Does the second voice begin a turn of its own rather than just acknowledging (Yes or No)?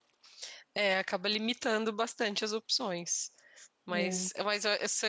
No